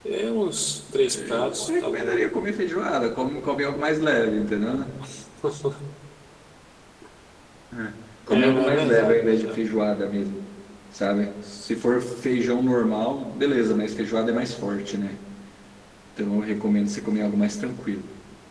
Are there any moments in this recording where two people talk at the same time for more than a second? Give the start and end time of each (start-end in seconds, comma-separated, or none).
1.0-2.2, 8.3-9.7